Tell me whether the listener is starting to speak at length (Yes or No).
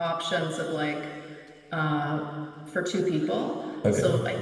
No